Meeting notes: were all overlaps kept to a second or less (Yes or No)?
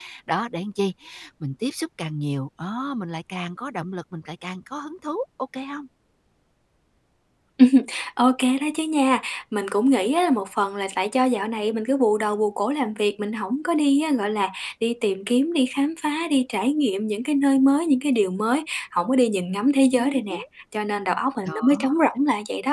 Yes